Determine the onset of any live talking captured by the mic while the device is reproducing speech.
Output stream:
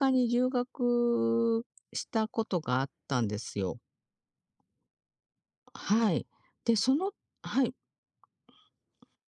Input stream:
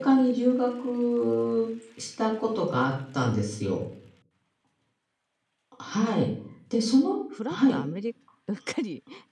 7.3 s

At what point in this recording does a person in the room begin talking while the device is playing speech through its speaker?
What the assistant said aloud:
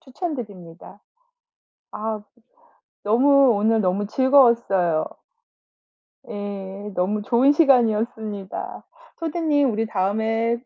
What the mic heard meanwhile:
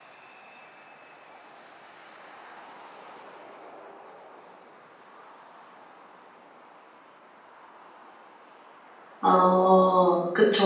9.2 s

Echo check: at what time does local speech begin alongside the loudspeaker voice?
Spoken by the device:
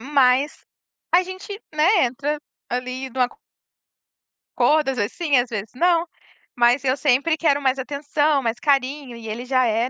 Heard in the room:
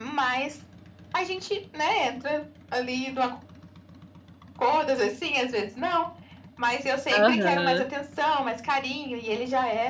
7.1 s

